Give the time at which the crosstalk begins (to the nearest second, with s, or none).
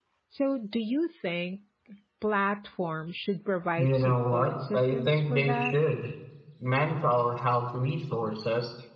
4 s